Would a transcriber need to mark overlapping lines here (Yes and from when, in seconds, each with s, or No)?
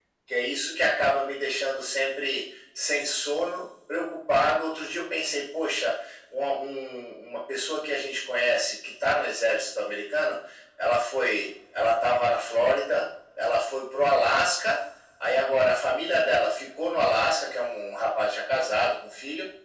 No